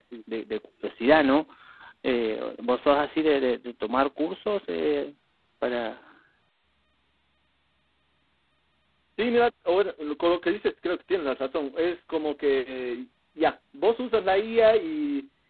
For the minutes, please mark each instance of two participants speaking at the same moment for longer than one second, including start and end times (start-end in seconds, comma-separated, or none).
none